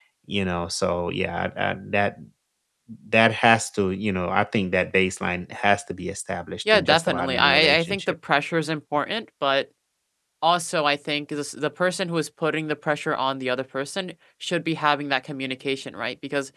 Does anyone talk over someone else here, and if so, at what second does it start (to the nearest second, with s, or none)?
7 s